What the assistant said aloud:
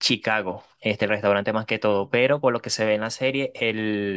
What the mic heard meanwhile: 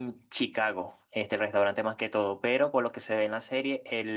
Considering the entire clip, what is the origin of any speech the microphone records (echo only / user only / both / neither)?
echo only